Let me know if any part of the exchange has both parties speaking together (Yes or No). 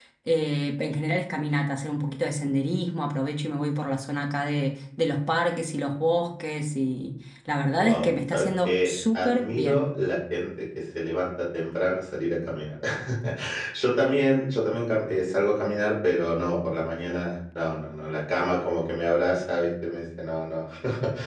Yes